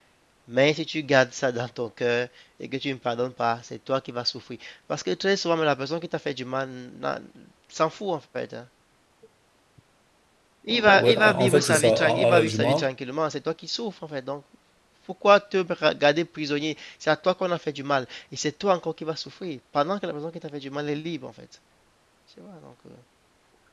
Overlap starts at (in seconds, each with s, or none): 11.0 s